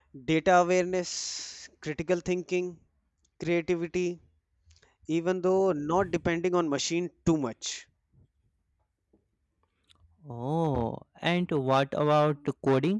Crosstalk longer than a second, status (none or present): none